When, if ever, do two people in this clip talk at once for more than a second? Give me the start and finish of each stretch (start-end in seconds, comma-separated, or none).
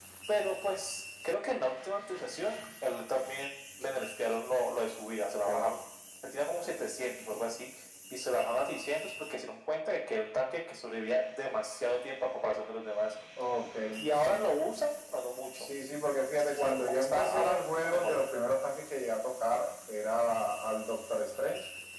16.3-18.2